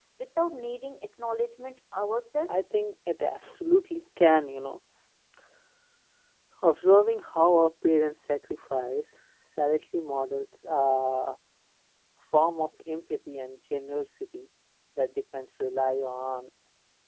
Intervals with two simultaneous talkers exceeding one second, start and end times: none

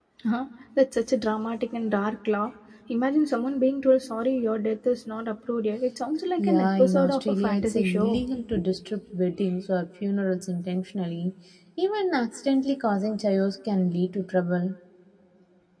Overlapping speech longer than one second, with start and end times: 6.4-8.2

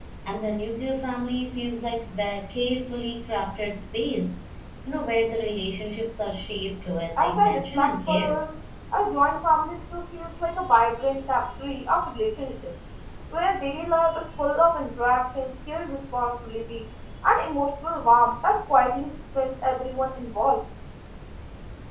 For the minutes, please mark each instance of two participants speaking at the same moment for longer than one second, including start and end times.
7.2-8.4

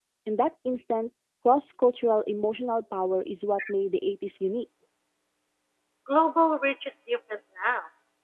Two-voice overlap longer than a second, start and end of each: none

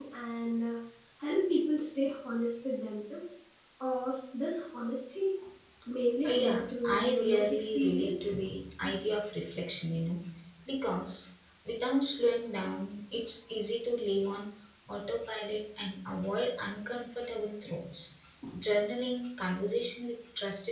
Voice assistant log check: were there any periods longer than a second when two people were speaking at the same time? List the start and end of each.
6.2-8.3

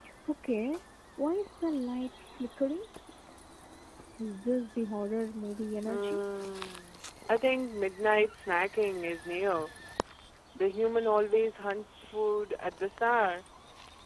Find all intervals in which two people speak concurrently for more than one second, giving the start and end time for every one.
none

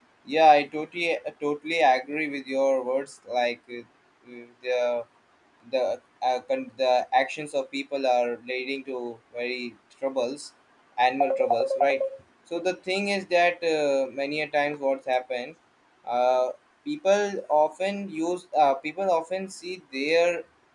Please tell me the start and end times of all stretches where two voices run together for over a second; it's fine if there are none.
none

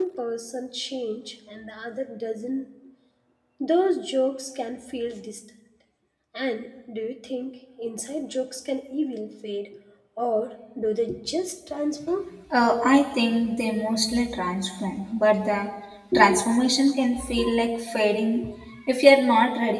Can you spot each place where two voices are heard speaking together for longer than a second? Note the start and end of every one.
none

